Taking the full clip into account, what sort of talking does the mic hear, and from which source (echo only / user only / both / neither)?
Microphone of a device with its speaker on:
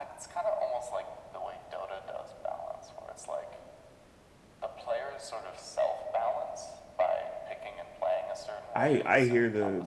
both